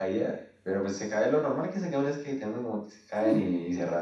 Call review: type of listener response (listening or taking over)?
listening